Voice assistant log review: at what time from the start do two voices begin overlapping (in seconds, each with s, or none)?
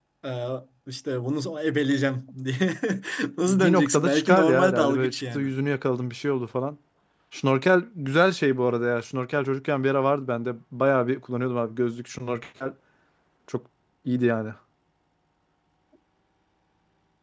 3.5 s